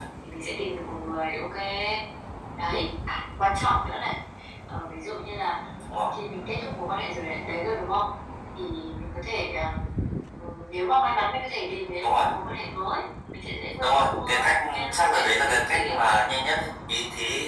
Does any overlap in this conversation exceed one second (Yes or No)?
Yes